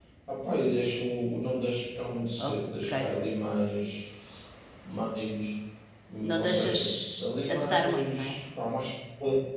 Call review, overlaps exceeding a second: present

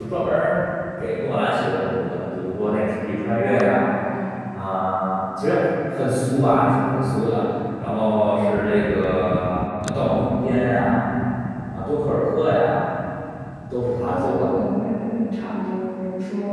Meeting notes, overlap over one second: none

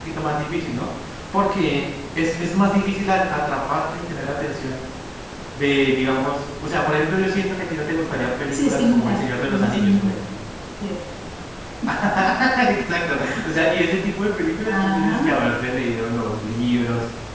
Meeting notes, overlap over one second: present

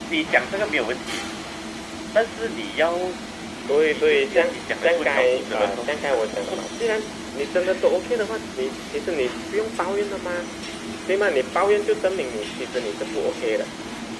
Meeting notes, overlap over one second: present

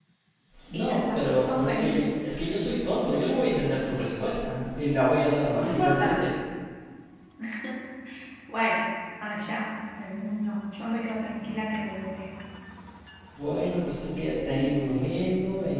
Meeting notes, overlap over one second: present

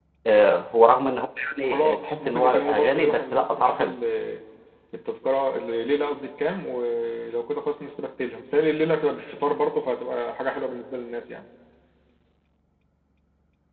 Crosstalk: present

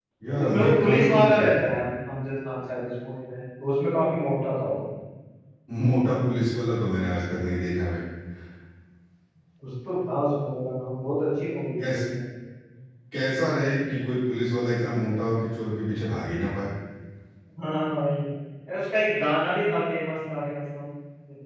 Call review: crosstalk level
present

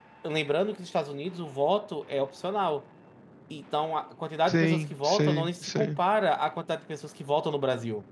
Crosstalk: present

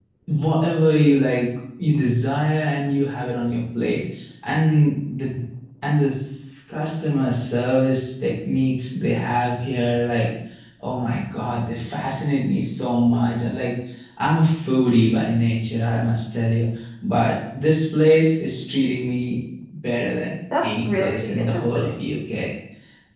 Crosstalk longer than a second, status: present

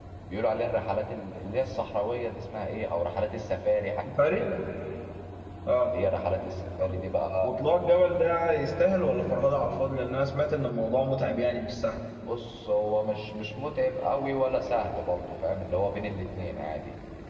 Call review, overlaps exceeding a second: none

